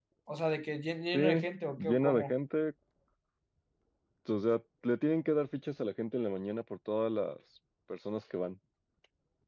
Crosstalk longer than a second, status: present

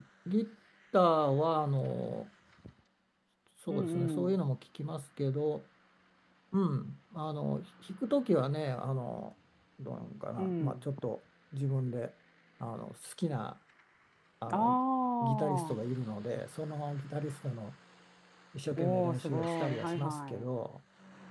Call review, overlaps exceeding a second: present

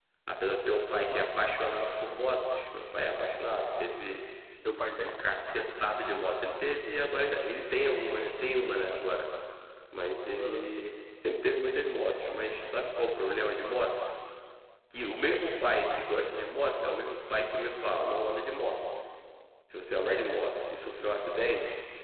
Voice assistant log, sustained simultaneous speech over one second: none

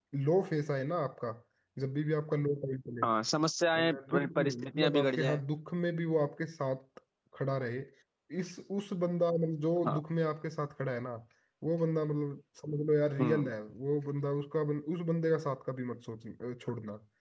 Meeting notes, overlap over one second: present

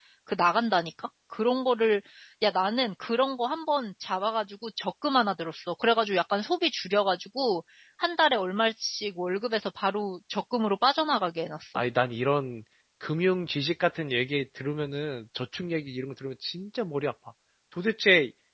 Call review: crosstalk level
none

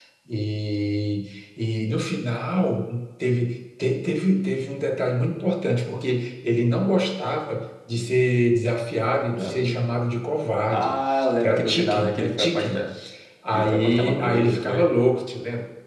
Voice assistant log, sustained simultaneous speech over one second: present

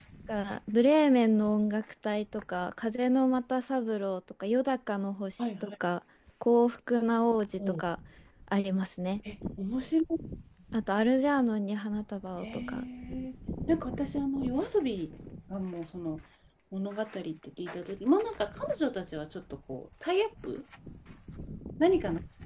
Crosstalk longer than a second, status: none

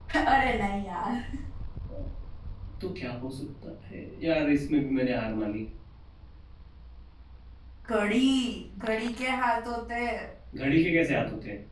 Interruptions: none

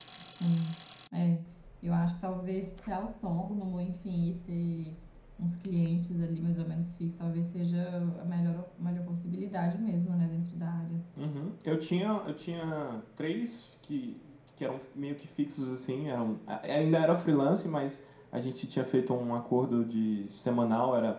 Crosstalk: none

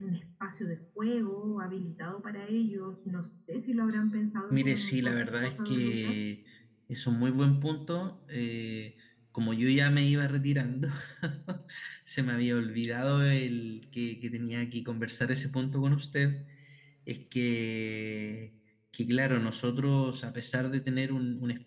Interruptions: present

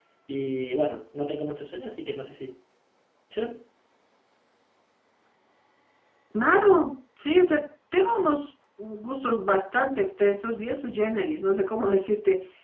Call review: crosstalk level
none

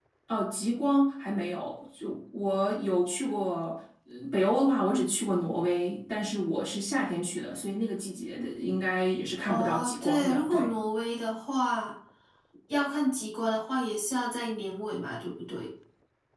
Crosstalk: present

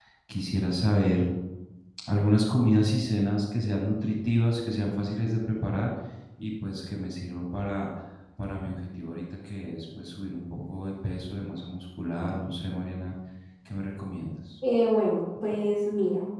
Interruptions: none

